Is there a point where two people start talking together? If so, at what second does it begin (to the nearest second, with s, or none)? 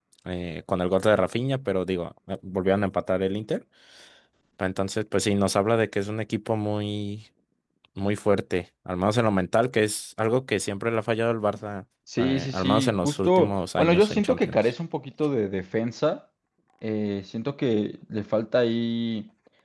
12 s